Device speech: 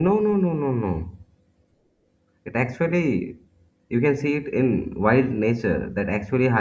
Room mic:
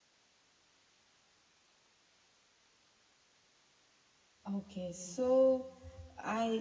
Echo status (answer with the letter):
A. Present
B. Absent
B